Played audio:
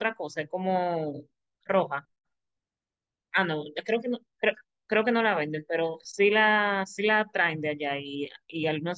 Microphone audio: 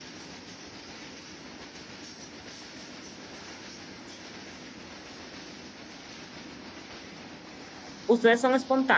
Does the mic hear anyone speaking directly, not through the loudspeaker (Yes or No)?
Yes